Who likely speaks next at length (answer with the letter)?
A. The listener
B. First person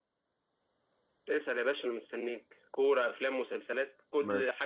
A